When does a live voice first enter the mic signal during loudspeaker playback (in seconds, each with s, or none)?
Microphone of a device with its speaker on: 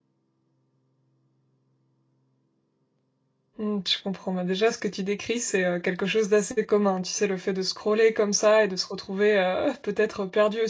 3.6 s